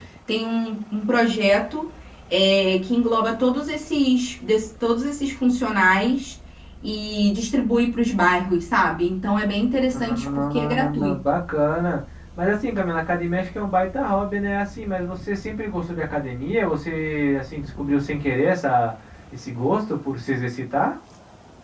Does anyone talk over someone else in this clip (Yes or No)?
Yes